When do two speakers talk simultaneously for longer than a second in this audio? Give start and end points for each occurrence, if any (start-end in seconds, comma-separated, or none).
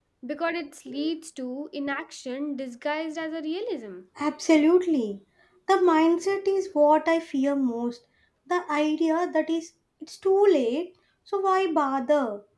none